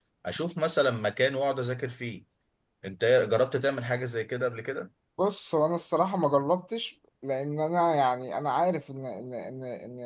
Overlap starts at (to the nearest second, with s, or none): none